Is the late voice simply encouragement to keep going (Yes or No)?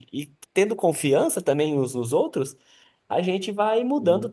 Yes